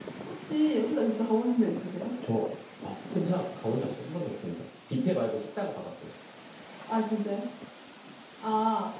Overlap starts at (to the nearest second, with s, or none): none